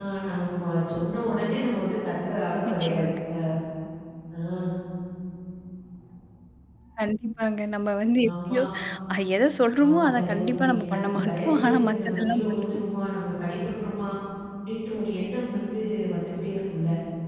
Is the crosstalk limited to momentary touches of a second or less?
No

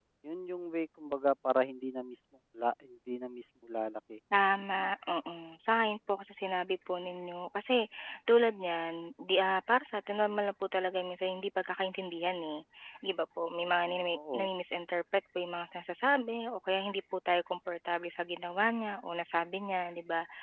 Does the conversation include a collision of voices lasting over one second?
No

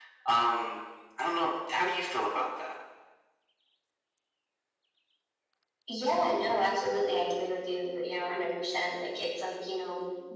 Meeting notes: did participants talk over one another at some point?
No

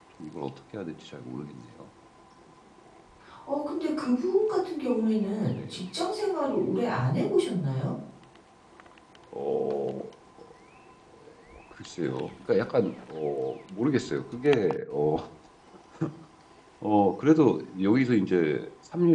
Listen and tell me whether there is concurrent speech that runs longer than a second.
No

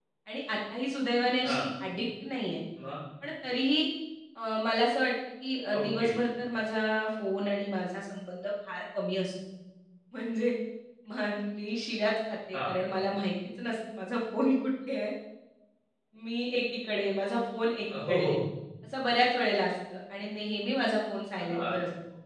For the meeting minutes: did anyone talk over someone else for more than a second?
No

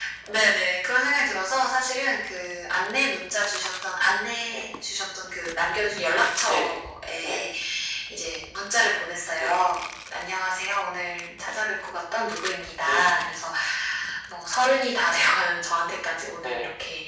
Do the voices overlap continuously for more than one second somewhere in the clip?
No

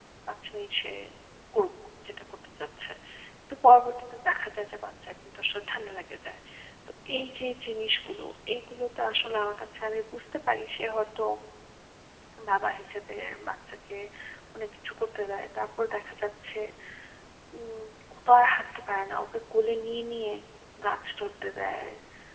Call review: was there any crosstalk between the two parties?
No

